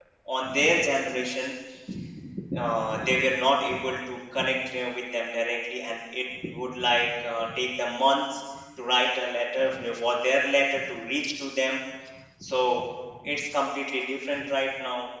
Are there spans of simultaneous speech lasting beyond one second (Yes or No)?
No